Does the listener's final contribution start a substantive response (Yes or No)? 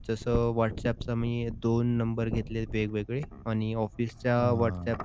No